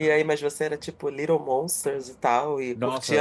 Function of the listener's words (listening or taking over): taking over